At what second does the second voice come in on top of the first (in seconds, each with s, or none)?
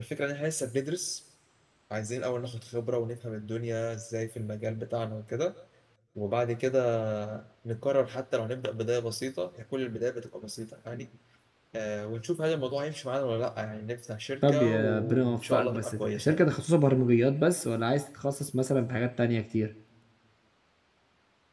14.4 s